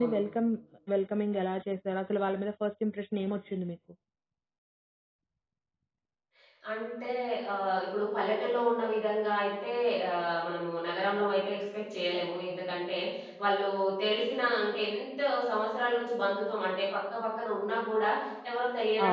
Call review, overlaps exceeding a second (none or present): none